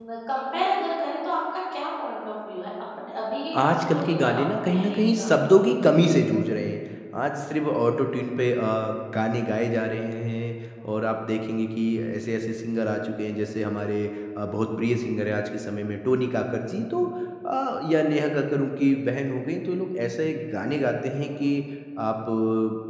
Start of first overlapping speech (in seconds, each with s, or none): 3.6 s